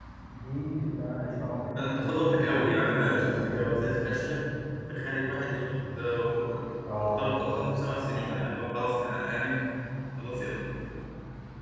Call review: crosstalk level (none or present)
present